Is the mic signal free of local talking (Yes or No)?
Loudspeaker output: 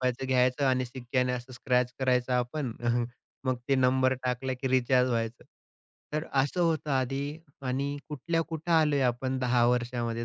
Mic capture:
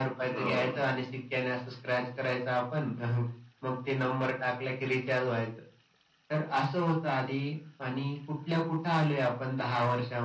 No